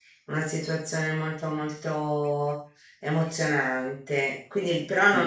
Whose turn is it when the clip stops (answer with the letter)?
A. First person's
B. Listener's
A